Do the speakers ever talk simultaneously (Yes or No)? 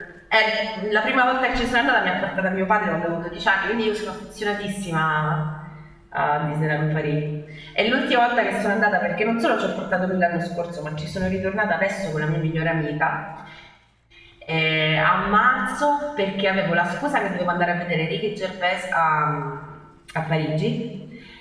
No